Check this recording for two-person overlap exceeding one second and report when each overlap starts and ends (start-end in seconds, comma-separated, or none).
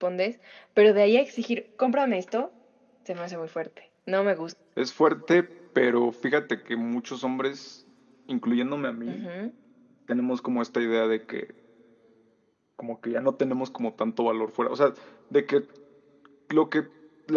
none